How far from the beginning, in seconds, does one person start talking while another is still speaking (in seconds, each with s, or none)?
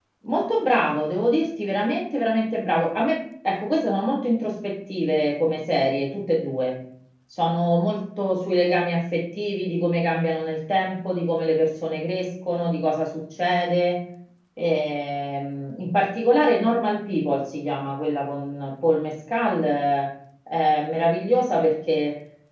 none